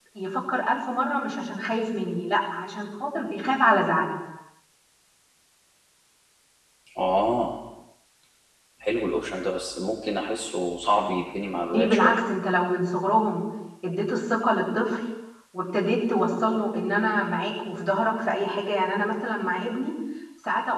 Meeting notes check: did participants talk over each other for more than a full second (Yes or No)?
No